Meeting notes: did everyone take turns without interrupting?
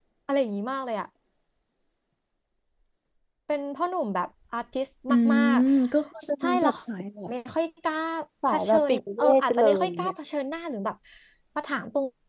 No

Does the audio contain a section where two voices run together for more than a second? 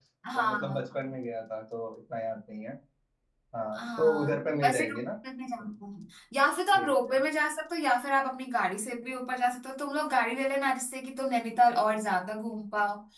Yes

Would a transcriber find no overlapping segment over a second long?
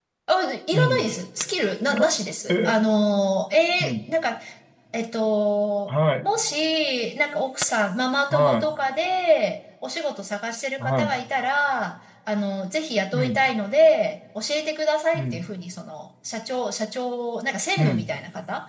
Yes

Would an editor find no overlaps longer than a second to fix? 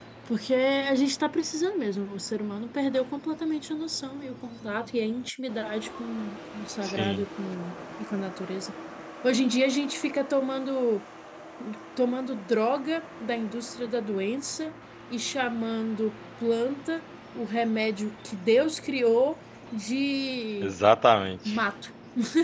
Yes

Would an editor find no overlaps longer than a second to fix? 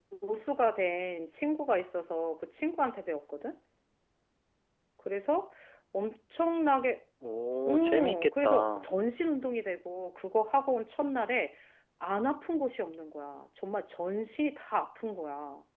No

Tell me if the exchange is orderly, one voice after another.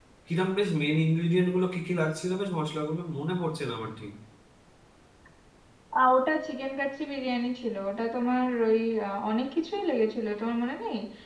Yes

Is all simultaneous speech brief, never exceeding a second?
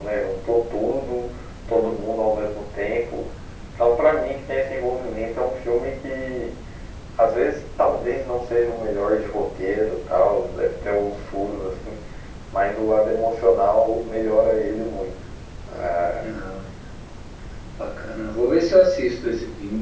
Yes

